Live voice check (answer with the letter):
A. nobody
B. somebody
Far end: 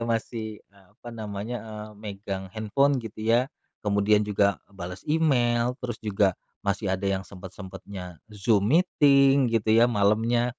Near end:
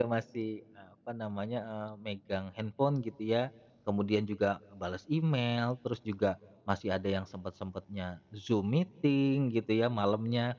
A